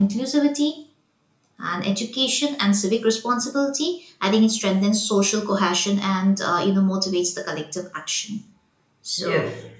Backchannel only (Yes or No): No